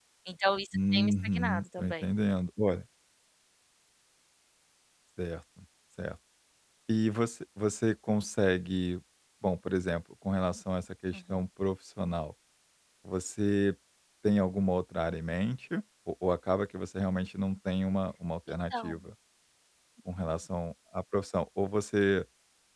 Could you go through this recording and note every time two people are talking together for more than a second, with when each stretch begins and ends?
0.7-2.1

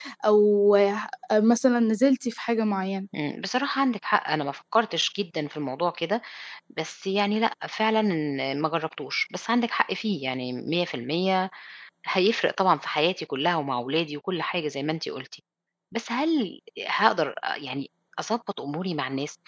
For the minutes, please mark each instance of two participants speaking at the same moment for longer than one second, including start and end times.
none

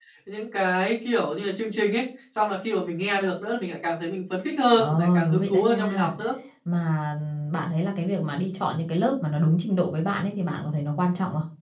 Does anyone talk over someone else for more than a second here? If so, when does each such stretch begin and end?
4.8-6.1

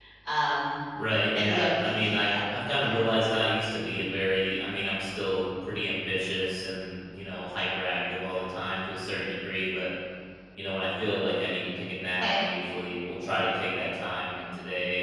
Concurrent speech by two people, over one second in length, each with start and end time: 1.4-3.0

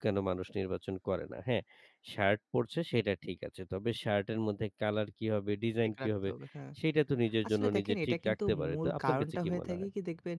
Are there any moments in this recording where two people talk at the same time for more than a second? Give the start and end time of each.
7.5-9.9

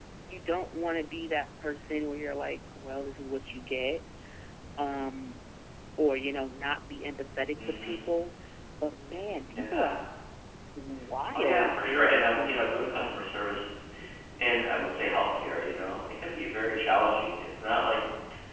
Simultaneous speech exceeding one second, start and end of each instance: 11.3-13.2

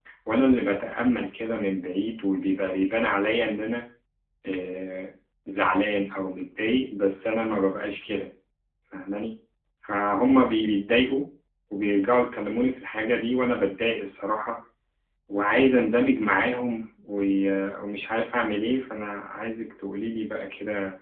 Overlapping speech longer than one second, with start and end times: none

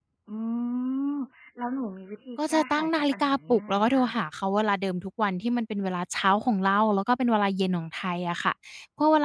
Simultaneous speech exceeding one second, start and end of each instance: 2.5-4.1

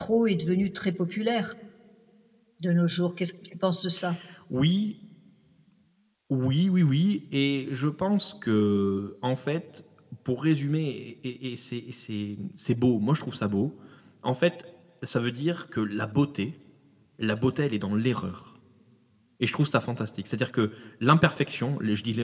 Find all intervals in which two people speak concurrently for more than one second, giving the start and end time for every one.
none

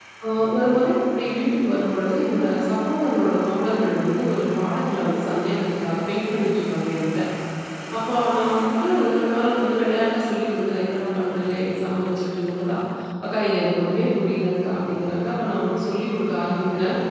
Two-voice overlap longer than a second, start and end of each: none

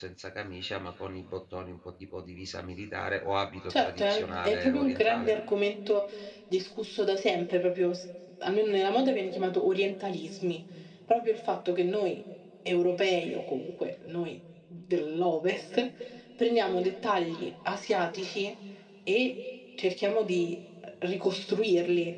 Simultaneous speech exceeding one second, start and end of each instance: 3.7-5.3

